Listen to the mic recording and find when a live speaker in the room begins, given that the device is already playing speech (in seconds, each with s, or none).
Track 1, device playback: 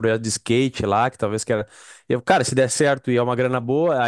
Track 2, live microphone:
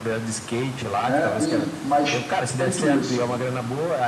1.0 s